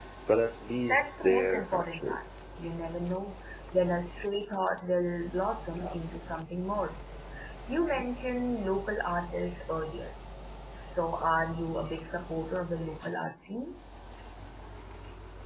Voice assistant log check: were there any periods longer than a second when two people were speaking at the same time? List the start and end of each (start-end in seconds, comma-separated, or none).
0.9-2.2